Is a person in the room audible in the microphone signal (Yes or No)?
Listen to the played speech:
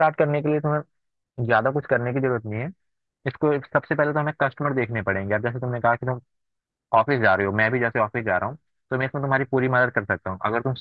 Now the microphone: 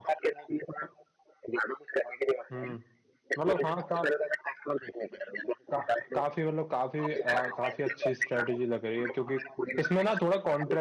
Yes